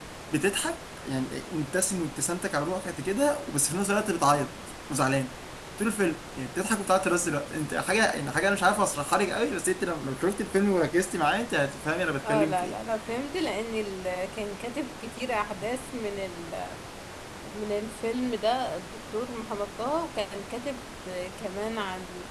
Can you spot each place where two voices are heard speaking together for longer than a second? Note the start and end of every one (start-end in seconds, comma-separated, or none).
none